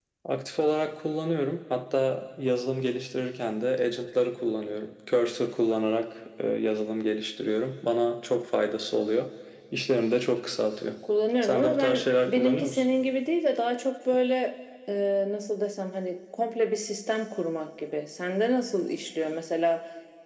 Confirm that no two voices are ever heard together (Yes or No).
No